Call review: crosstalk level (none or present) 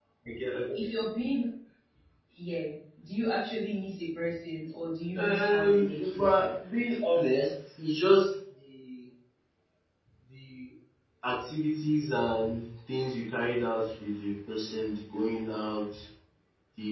present